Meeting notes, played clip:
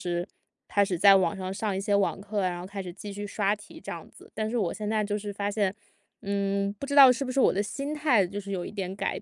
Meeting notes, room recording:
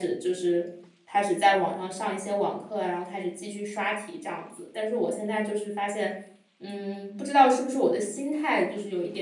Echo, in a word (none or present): present